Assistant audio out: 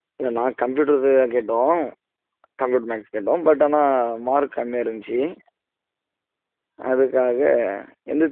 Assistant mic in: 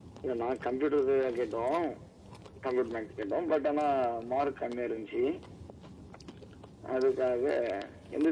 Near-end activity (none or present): none